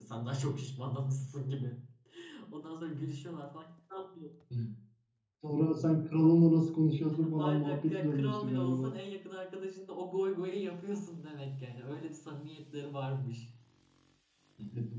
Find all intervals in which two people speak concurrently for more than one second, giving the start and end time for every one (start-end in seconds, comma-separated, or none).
7.3-8.9